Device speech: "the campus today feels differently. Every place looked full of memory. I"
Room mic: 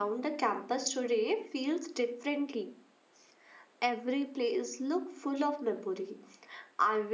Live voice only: none

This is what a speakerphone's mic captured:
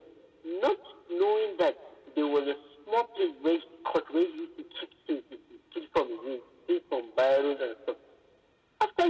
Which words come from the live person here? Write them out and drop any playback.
none

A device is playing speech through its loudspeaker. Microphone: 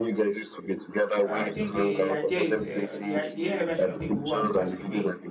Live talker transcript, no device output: So I think the idea is uh, the i- the AI version of people who have passed away.

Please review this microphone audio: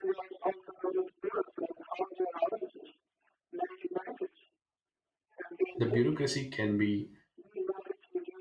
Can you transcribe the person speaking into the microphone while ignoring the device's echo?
The bureaucracy can be

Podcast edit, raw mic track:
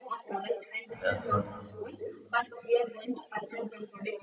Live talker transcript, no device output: yeah, so

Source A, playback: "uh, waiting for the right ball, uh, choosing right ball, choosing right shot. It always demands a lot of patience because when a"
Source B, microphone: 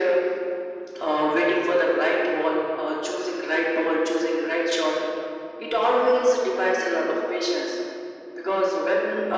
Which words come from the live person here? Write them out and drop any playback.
none

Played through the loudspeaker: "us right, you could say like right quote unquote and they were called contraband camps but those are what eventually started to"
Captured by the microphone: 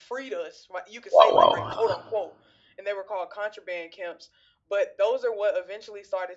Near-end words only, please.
wow wow.

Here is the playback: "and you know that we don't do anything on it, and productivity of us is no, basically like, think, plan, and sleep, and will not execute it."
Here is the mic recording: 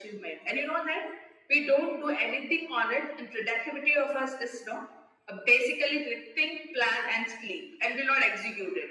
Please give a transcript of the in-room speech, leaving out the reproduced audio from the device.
none

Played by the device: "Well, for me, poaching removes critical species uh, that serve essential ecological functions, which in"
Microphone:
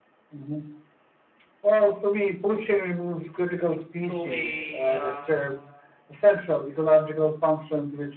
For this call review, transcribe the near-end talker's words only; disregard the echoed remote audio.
to a uh,

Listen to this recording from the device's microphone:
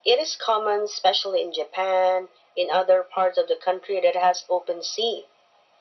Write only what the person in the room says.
none

